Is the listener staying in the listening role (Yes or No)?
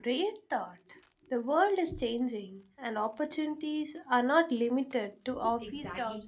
No